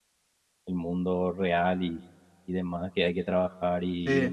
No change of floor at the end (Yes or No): Yes